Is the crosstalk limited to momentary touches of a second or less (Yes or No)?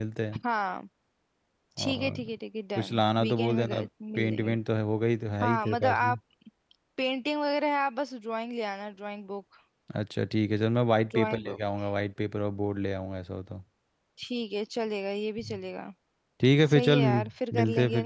No